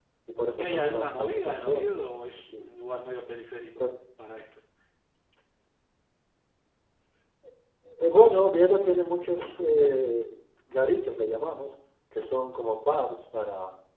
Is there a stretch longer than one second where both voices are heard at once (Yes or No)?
Yes